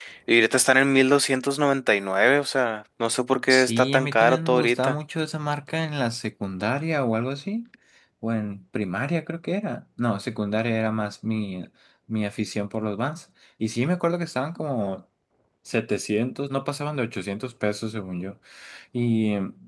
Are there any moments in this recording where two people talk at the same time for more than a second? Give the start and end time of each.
3.5-5.0

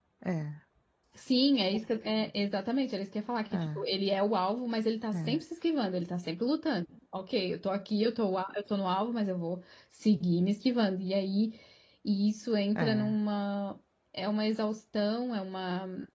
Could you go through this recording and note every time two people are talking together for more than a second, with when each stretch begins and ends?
none

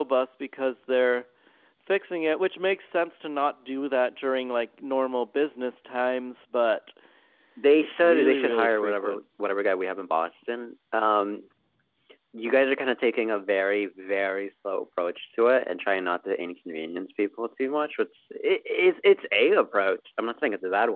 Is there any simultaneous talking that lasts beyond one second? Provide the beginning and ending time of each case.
7.8-9.2

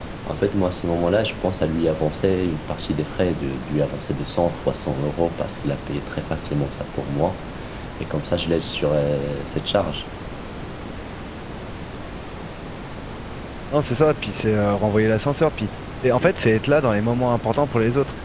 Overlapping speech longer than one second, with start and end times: none

